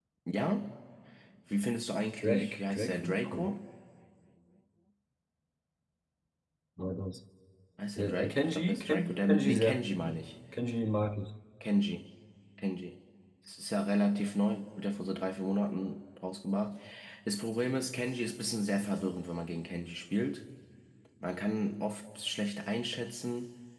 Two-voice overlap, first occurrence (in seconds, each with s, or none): 2.2 s